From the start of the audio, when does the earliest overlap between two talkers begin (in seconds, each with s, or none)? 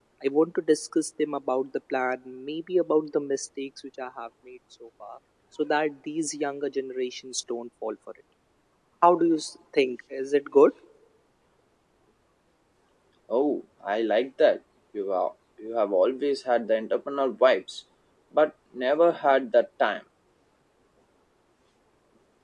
none